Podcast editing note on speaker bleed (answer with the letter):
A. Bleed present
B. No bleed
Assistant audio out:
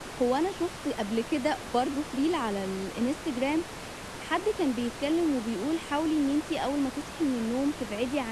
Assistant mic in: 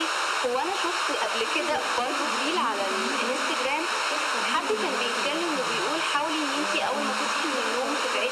A